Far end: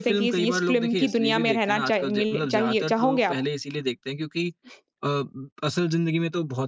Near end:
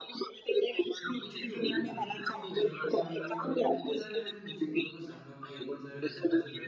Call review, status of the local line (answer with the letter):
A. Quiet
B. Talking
B